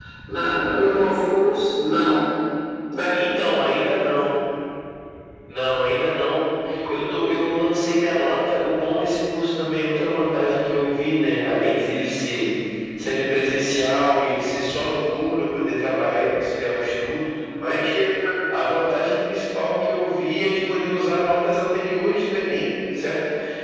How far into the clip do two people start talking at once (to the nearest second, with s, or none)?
none